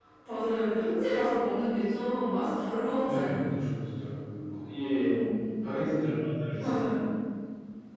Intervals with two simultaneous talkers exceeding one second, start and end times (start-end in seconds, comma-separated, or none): none